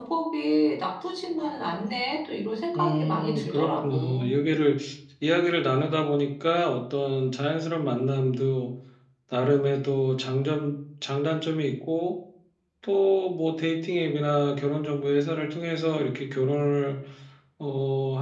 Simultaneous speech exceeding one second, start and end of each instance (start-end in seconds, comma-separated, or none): 2.8-4.3